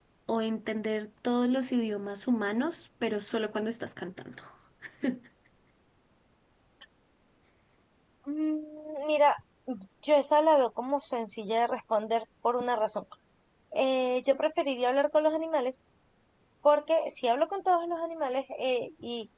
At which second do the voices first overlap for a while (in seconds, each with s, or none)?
none